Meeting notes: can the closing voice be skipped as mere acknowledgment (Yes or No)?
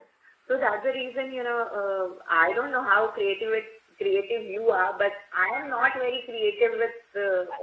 No